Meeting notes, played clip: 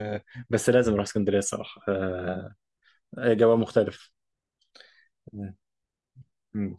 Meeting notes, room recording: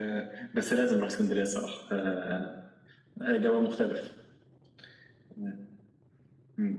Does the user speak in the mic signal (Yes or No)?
No